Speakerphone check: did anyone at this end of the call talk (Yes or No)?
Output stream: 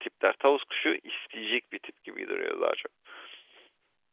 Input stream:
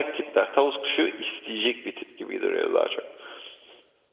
No